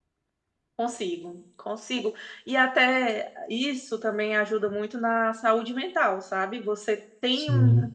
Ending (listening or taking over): listening